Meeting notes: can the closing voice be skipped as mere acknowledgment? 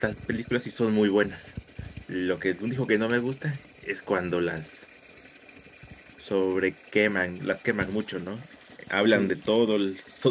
Yes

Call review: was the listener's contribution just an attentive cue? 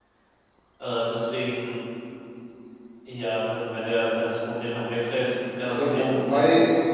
No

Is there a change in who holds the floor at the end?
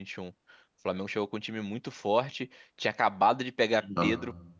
No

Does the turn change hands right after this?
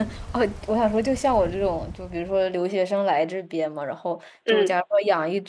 No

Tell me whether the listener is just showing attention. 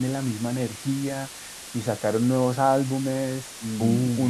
Yes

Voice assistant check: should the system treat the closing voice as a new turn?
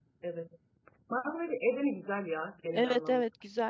Yes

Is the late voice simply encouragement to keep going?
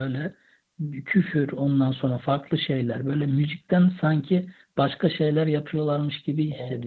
No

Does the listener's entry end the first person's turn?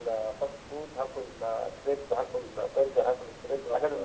Yes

